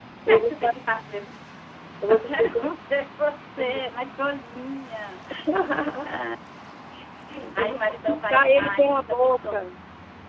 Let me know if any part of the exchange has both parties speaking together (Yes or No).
Yes